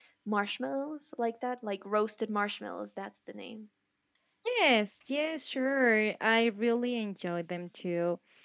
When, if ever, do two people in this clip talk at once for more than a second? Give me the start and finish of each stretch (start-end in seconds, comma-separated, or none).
none